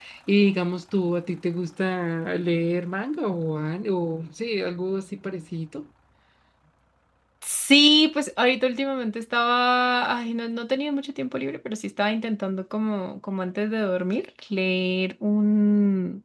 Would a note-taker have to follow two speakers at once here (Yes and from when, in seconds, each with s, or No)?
No